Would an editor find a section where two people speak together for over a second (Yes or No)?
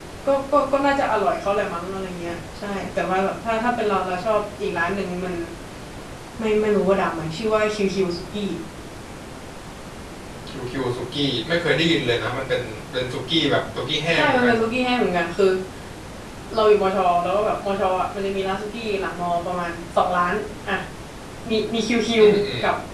No